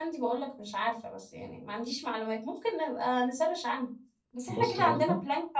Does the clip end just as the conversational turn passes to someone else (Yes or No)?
No